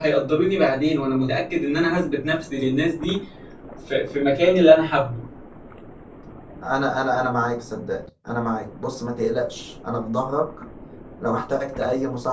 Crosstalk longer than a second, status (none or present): none